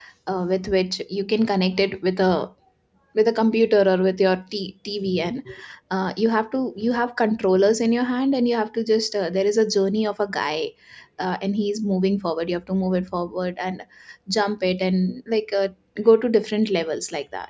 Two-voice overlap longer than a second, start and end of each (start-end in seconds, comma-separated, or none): none